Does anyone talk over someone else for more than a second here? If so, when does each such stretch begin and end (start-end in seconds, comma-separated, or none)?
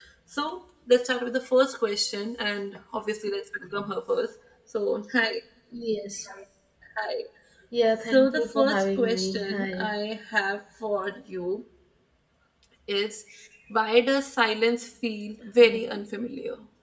8.1-9.9